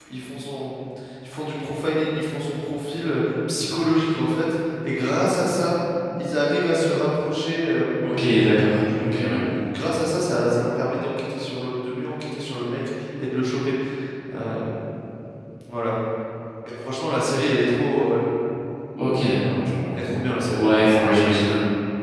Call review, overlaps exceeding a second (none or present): none